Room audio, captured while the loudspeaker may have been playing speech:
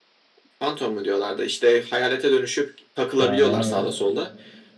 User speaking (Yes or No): Yes